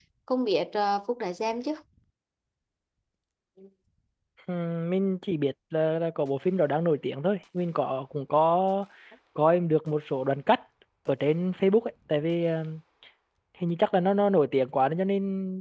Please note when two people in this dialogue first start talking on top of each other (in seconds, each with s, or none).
none